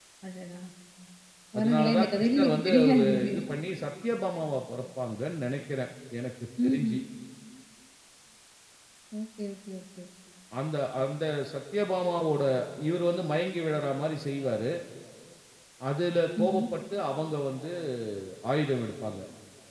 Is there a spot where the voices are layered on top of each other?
Yes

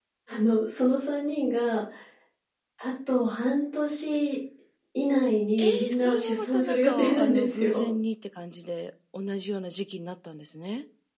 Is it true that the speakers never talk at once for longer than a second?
No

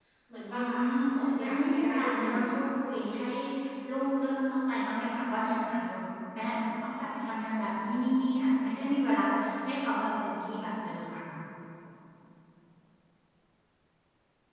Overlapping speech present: Yes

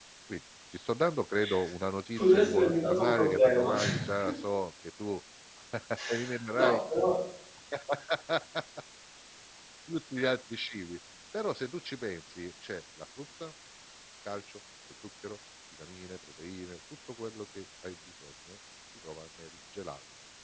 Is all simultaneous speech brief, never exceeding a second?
No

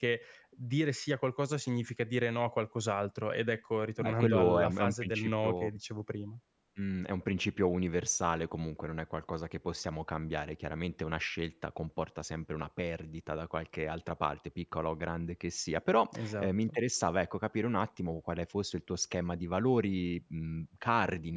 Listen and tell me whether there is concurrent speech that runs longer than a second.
Yes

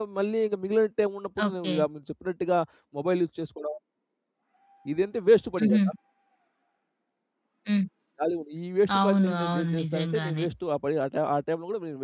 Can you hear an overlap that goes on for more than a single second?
Yes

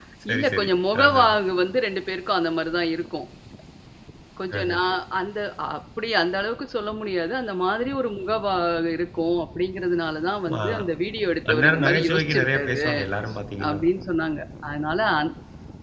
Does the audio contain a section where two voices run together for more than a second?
Yes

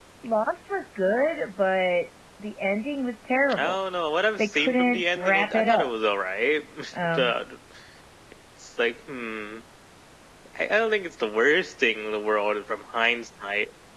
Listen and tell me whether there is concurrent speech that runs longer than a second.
Yes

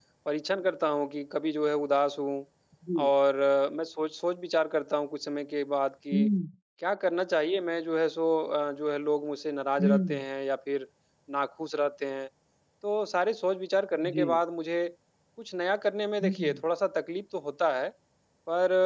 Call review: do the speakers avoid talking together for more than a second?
Yes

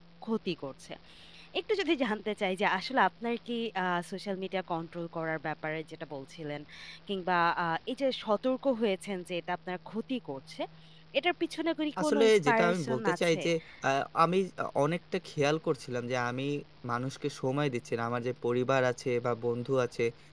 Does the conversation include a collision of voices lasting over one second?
Yes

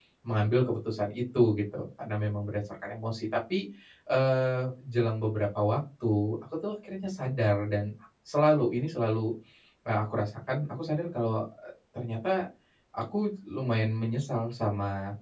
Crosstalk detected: No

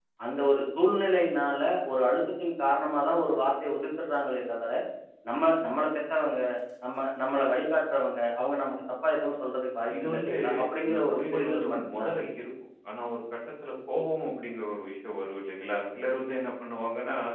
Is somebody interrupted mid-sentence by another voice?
Yes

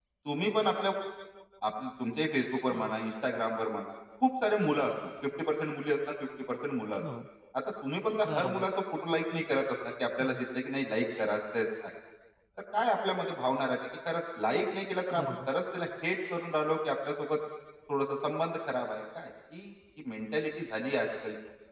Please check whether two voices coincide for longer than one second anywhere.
No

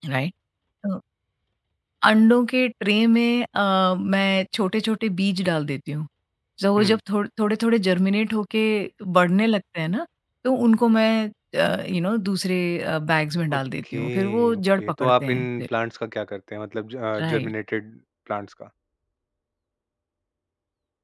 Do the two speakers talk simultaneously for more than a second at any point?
Yes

